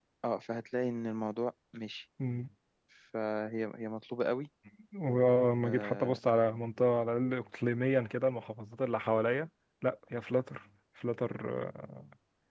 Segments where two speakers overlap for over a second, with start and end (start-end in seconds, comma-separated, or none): none